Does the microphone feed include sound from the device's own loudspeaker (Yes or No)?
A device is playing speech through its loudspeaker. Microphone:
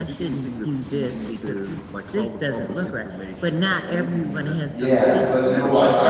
Yes